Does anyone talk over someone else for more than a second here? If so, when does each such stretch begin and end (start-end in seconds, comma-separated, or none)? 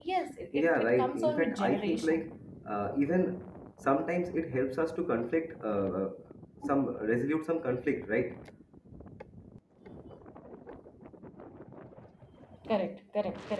0.5-2.2